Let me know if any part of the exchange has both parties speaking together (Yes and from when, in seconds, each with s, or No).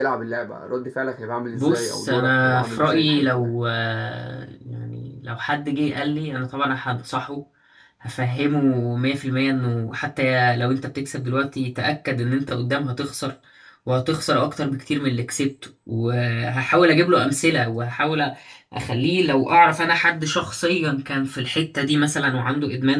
Yes, from 1.5 s